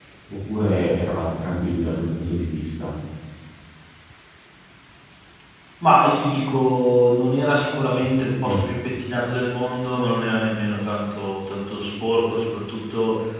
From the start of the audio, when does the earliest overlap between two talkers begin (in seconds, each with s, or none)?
none